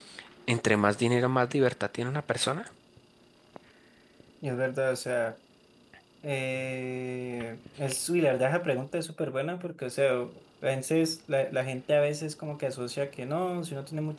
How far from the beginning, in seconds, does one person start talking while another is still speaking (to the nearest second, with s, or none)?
none